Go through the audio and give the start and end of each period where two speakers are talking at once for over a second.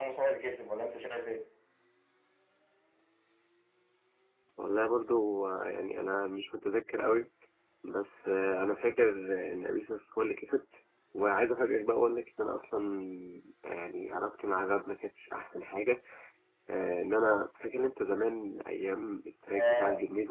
none

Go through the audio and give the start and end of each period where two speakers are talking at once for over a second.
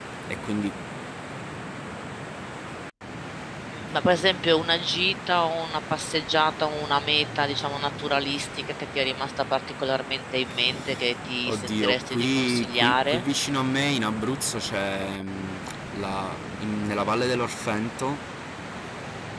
11.5-13.2

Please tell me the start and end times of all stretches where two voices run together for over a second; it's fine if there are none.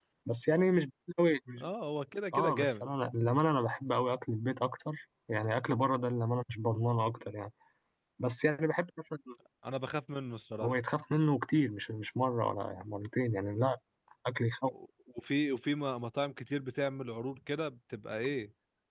none

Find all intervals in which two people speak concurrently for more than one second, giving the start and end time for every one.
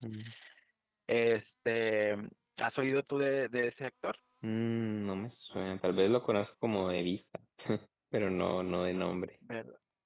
none

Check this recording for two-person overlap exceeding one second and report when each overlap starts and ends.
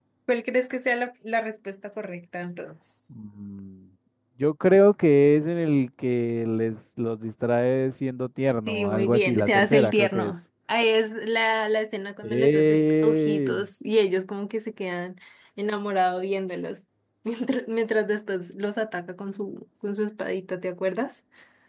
8.6-10.3, 12.2-13.6

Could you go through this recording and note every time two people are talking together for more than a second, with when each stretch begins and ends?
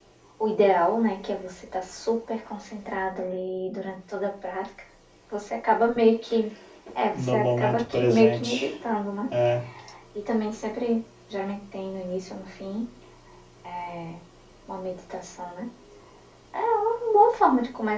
7.1-8.7

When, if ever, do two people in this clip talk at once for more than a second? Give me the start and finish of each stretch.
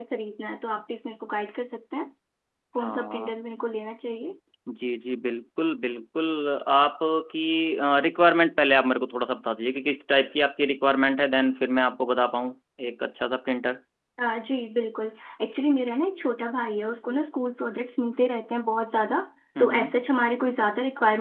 none

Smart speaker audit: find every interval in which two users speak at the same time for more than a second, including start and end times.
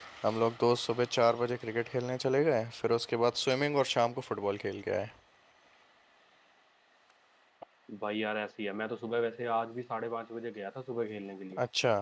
none

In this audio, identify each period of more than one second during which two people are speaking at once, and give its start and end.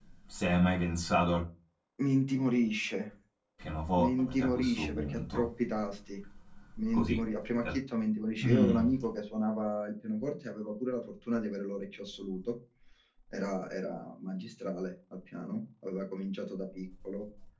4.0-5.4

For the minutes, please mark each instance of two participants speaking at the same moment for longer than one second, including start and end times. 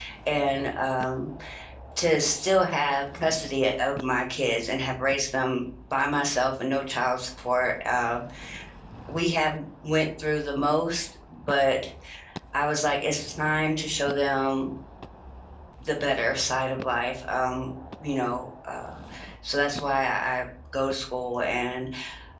none

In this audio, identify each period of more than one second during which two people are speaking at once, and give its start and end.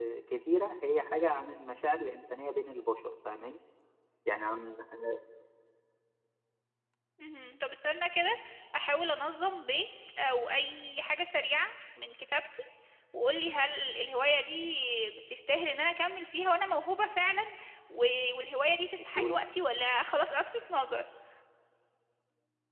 none

